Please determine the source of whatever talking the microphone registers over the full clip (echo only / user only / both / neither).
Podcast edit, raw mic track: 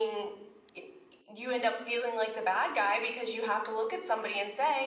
echo only